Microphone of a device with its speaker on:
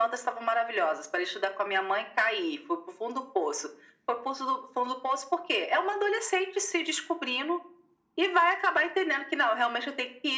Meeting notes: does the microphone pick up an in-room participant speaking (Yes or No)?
No